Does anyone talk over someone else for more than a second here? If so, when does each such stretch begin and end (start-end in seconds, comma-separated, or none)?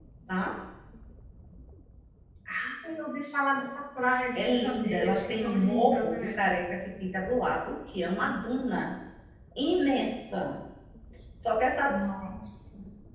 4.3-6.4